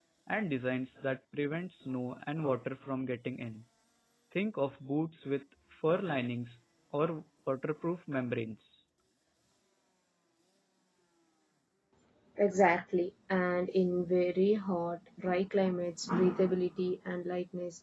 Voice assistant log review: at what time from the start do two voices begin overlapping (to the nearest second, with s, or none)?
none